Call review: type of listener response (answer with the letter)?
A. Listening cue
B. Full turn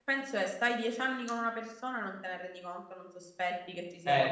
B